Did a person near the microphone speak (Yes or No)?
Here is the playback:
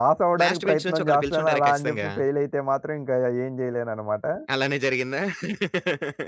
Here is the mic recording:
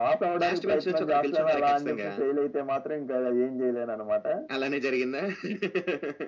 No